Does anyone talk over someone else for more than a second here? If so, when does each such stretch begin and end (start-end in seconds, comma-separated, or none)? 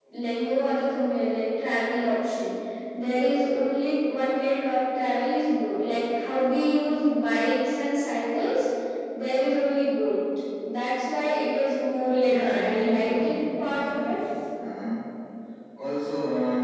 12.2-14.2